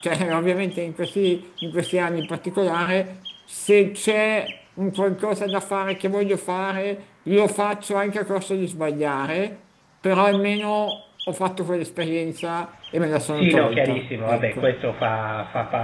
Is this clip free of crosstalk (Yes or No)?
No